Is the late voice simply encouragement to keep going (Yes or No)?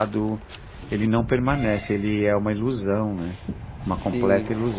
No